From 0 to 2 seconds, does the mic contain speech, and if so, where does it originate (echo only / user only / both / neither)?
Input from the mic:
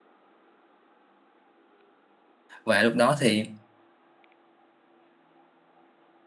neither